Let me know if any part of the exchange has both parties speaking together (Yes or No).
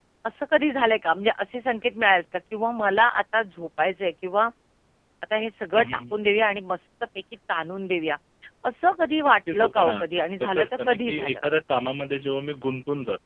Yes